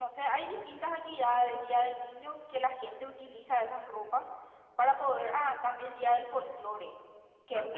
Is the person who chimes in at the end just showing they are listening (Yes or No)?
Yes